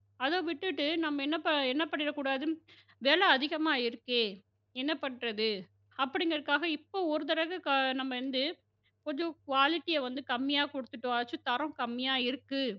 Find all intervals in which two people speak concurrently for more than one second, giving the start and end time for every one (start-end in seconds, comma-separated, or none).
none